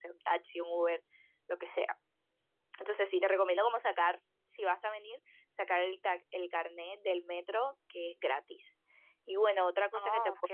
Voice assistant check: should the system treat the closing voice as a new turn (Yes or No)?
No